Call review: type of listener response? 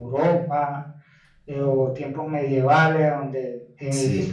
listening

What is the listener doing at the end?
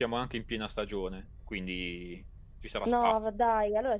taking over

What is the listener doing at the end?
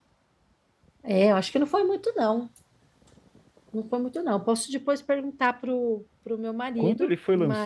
taking over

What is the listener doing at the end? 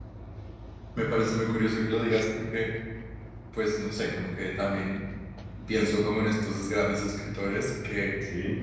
listening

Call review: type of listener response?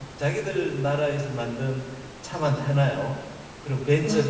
listening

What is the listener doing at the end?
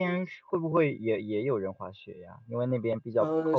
taking over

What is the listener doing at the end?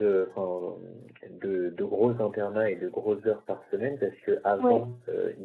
listening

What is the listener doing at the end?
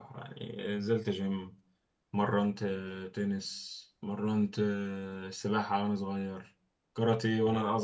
listening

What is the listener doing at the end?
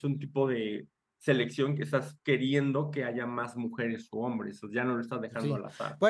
taking over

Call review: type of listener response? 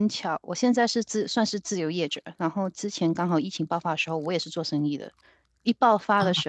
listening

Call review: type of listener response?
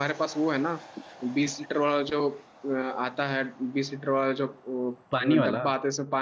listening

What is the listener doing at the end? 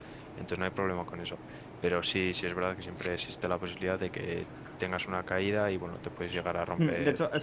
taking over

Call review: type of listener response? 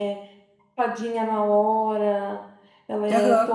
listening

